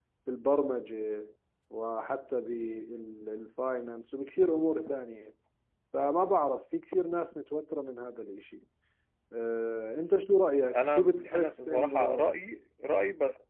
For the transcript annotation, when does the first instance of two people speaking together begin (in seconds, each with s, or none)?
10.7 s